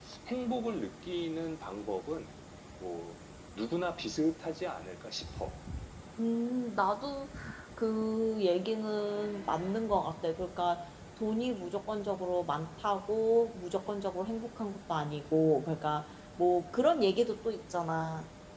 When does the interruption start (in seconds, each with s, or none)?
none